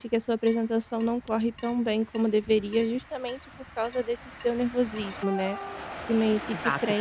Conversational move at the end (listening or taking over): listening